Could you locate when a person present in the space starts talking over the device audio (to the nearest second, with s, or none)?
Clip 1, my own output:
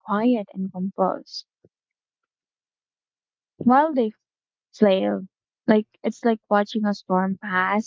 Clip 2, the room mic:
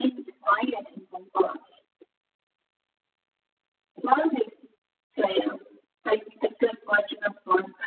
none